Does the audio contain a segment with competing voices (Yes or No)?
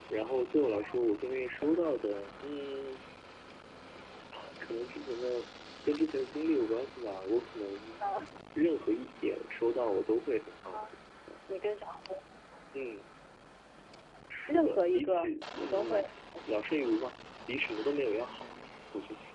Yes